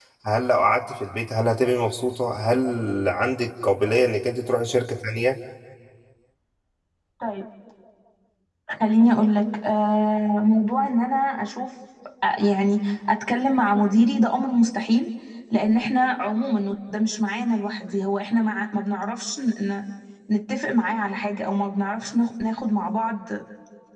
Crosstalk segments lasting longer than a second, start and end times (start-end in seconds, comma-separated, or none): none